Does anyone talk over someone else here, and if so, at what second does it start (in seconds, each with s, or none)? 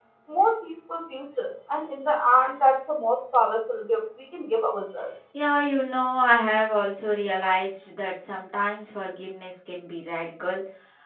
none